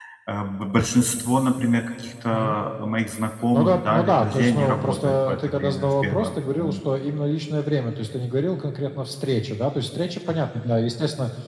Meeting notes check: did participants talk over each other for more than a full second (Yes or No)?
Yes